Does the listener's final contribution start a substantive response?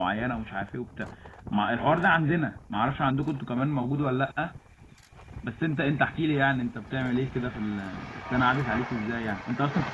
No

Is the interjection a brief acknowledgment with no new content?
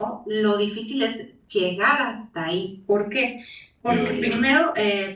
Yes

